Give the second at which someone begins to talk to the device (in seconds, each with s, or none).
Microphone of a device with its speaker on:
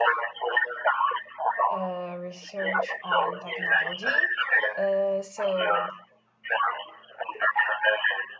1.7 s